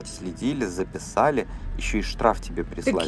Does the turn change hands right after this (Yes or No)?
Yes